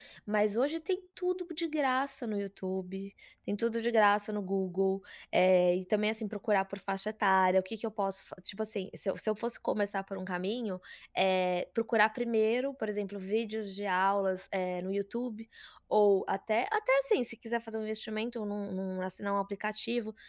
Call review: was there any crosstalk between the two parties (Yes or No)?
No